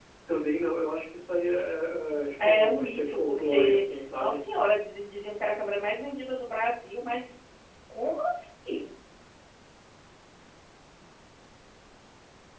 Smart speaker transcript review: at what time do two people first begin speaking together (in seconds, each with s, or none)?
2.4 s